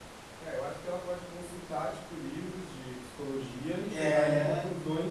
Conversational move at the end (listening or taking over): listening